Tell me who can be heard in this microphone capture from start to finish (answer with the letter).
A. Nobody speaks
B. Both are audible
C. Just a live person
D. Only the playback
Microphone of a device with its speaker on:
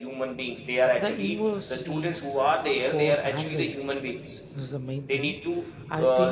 B